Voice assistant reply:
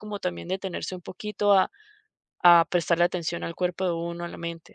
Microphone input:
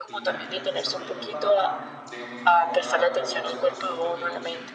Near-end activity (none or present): present